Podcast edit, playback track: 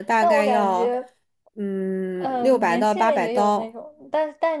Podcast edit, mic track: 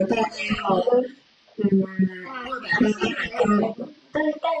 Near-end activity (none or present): none